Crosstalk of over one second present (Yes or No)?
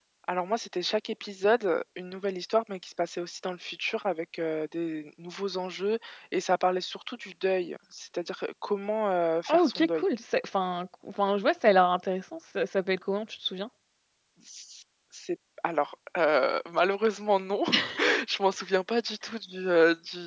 No